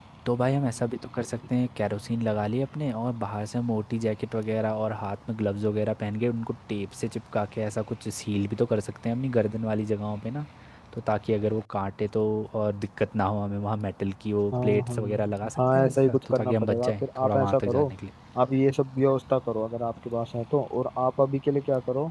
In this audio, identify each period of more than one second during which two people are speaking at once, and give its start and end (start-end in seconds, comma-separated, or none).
14.5-17.8